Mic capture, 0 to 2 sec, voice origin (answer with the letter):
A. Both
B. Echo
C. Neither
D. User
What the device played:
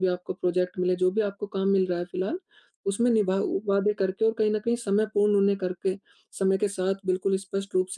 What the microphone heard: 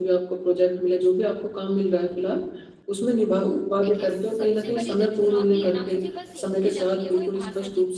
B